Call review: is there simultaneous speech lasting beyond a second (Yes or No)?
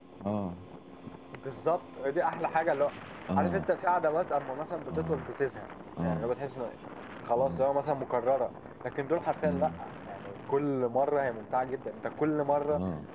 No